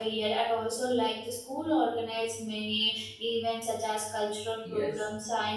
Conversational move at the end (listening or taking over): taking over